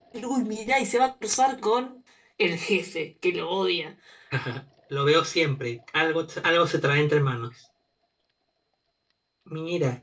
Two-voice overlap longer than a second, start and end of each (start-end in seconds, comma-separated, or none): none